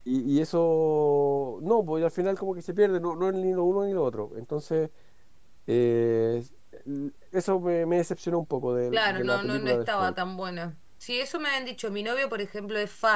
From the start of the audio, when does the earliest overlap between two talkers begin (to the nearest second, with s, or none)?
9 s